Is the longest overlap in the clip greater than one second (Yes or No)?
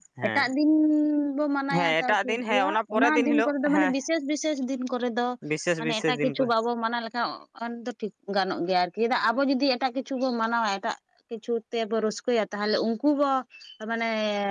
Yes